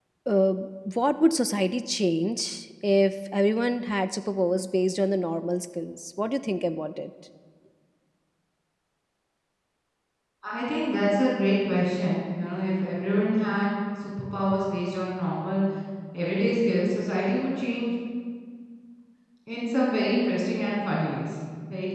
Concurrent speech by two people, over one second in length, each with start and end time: none

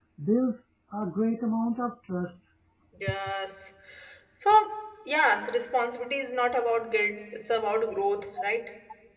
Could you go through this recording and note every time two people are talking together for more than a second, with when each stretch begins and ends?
none

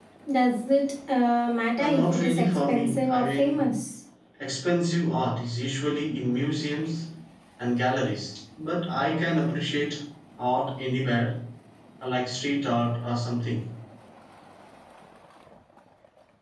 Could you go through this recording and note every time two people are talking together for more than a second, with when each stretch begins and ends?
1.8-3.7

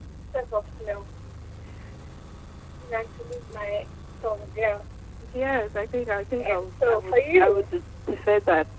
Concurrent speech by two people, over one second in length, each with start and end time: 6.4-7.7

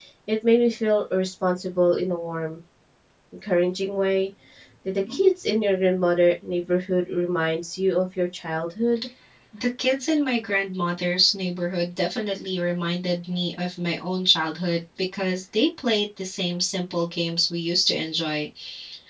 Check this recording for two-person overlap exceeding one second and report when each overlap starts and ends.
none

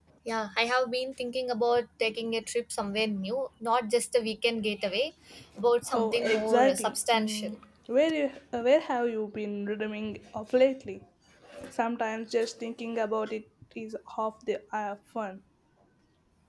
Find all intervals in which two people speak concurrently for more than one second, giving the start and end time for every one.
5.9-7.5

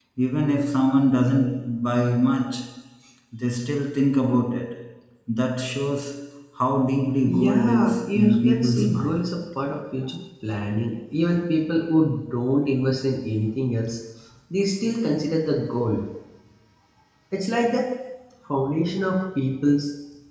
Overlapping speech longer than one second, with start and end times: 7.3-9.2

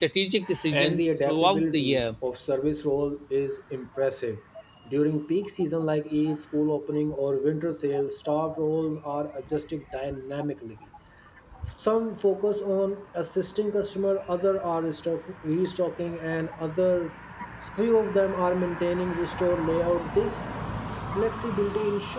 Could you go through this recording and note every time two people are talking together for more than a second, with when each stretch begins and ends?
0.7-2.0

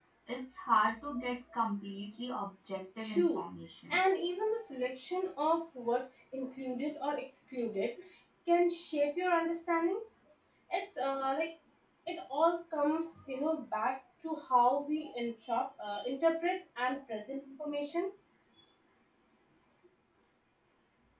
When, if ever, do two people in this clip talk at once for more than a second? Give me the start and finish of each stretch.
none

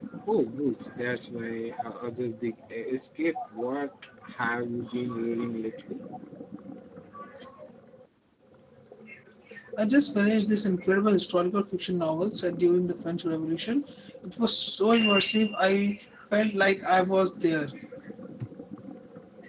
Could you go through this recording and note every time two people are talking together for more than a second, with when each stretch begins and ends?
none

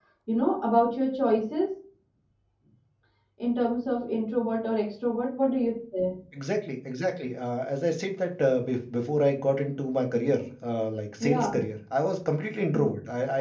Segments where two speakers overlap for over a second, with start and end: none

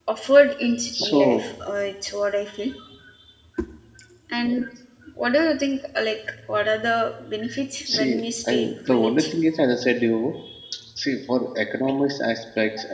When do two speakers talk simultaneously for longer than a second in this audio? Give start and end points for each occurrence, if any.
7.8-9.3

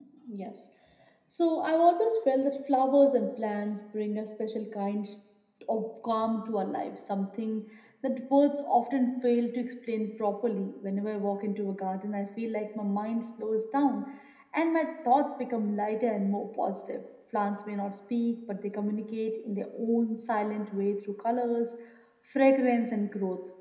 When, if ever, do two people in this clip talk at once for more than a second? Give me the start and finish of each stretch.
none

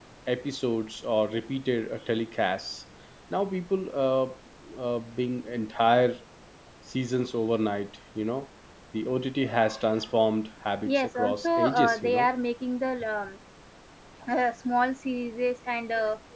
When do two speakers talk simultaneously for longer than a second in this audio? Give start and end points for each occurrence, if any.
10.8-12.3

